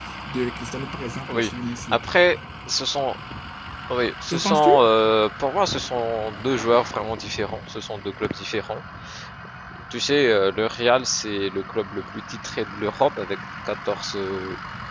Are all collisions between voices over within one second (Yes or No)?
Yes